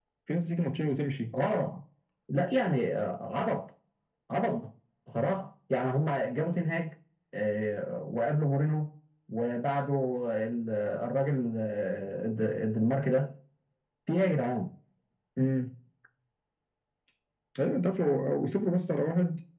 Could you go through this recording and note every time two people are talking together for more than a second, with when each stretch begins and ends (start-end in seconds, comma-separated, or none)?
none